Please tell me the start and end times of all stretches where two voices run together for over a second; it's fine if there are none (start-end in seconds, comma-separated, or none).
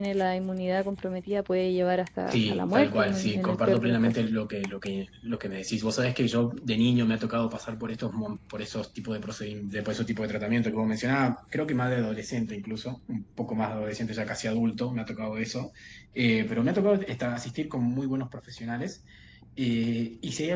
2.3-4.1